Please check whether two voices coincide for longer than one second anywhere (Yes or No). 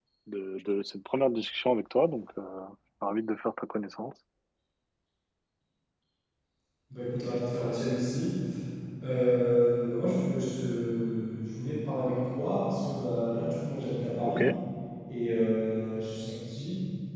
No